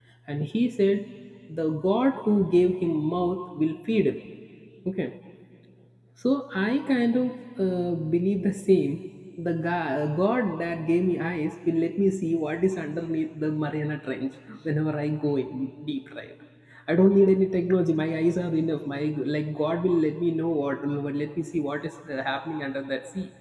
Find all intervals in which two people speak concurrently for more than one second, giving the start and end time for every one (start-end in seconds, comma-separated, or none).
none